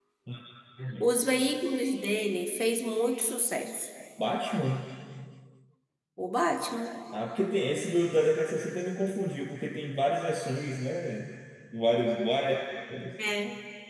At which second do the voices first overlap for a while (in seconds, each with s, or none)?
none